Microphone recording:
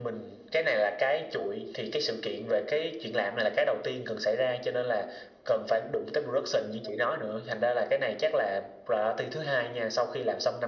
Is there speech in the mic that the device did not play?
No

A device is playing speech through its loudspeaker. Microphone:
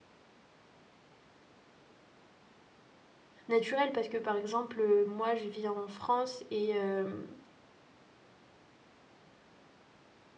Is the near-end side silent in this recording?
No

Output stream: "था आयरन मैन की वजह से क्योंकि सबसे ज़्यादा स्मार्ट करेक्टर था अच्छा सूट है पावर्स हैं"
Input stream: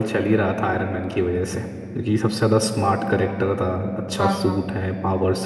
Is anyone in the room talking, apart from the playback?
Yes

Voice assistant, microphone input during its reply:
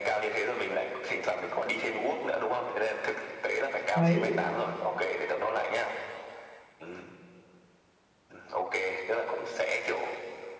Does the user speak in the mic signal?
Yes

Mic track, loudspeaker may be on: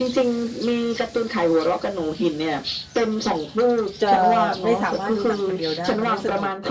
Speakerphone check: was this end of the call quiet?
No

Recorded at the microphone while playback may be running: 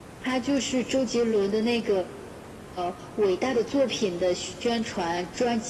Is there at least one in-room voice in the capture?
No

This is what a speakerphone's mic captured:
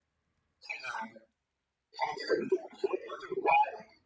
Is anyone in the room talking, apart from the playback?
No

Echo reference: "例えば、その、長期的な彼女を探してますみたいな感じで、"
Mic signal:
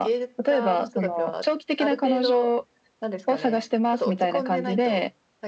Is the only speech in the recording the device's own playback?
No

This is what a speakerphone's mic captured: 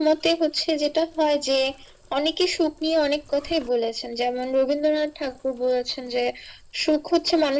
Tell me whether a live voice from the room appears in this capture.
No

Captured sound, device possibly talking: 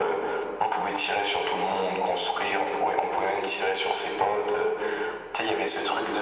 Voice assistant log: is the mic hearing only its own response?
Yes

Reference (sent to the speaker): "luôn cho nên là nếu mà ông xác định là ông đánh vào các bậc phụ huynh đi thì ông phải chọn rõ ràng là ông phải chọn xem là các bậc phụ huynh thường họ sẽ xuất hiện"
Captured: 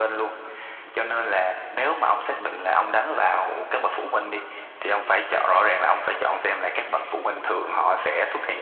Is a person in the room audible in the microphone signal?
No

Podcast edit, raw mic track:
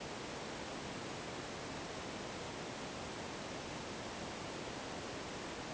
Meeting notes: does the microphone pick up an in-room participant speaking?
No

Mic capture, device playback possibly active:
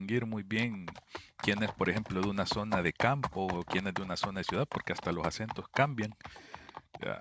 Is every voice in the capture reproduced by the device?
No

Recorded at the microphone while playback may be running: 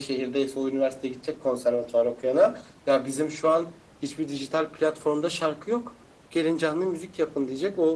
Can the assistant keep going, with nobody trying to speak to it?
Yes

